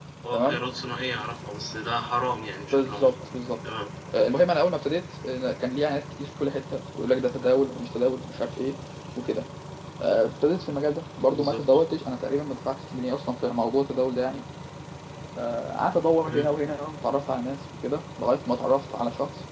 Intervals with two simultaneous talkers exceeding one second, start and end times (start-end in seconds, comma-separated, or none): none